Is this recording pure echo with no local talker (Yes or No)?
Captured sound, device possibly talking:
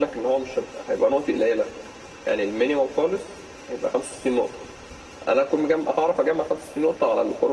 Yes